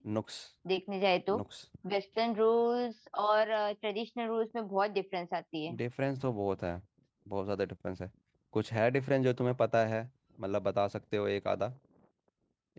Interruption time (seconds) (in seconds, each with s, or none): none